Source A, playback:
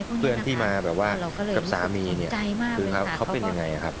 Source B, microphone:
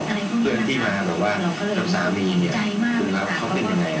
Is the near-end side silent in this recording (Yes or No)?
Yes